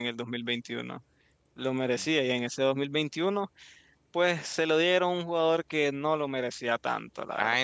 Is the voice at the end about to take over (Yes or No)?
Yes